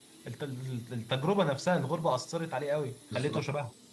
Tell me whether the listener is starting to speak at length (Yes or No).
Yes